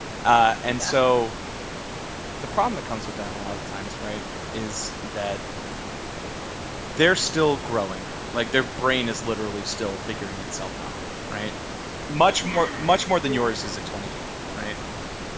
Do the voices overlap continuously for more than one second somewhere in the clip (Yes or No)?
Yes